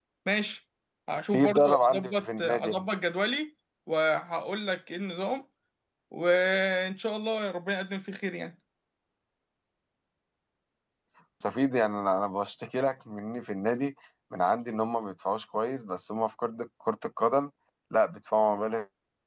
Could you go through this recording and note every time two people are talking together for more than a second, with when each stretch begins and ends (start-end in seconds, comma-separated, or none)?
1.3-2.8